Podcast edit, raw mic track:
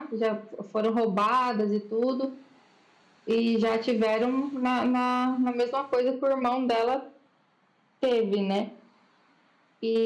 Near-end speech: none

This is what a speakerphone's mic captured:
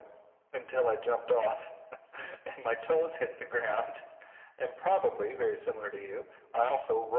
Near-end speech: none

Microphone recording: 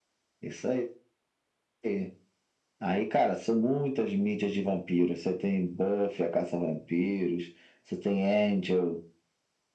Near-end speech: none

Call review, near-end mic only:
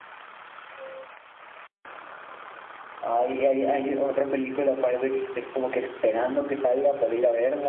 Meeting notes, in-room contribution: present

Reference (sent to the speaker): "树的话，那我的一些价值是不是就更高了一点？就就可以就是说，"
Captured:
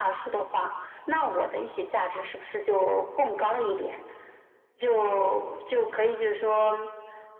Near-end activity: none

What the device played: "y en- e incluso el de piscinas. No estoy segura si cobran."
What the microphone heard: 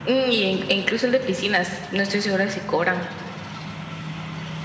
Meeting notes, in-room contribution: none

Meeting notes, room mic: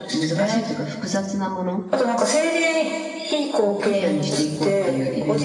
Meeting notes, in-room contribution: present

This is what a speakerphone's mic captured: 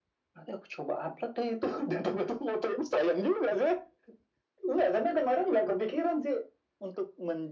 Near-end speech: none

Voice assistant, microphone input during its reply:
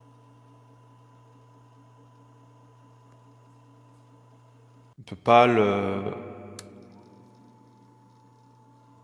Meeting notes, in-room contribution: present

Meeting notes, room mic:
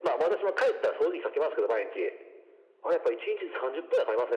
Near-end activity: none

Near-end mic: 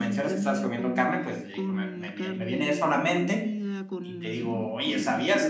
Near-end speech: present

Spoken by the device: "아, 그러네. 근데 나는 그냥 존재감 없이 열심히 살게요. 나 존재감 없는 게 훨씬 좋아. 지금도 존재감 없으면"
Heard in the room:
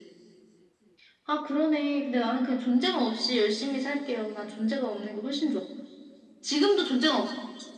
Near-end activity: none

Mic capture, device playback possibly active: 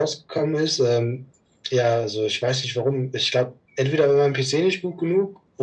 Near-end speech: none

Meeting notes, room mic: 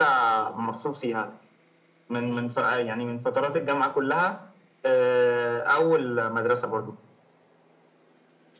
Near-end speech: none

